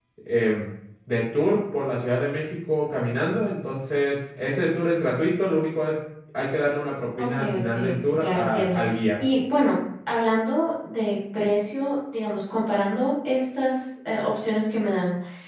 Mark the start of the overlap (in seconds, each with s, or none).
7.2 s